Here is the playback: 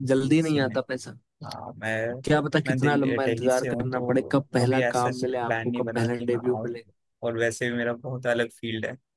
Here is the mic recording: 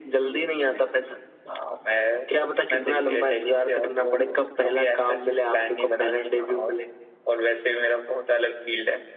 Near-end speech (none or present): none